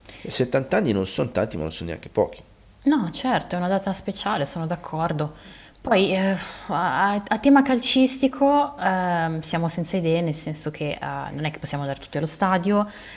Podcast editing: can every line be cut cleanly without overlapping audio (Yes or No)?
Yes